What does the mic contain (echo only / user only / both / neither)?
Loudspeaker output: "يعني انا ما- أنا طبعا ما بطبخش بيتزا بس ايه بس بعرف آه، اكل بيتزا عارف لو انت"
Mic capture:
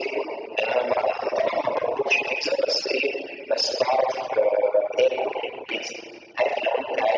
echo only